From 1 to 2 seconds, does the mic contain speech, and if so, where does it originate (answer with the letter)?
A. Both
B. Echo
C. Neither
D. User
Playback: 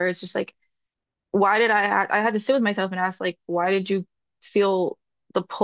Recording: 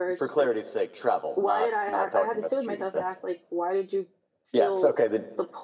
A